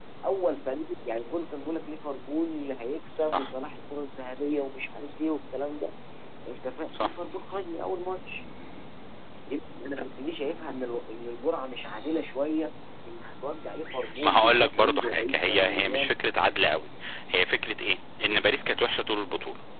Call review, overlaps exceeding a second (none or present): present